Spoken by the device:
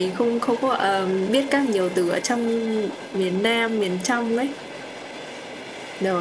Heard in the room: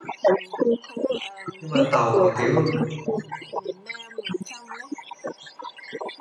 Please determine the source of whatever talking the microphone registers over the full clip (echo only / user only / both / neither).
both